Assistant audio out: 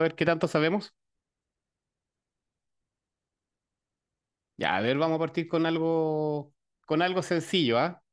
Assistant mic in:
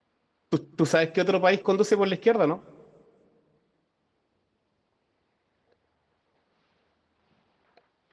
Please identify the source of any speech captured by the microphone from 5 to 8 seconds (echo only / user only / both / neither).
neither